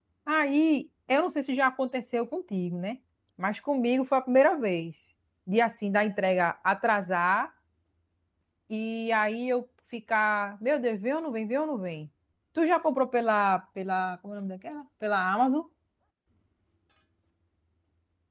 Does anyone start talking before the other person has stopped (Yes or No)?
No